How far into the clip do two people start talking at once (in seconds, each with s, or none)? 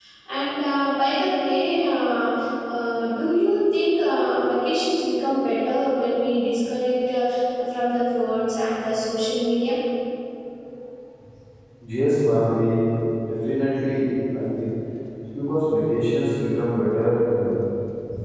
none